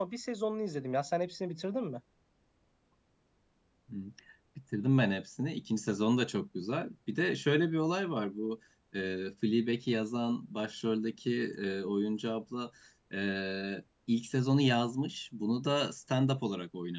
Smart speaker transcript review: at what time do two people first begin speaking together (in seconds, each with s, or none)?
none